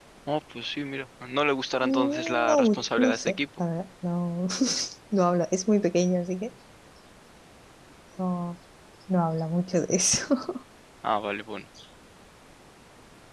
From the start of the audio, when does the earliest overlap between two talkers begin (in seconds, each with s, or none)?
1.8 s